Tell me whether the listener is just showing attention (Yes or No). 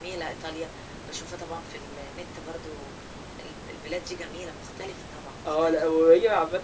No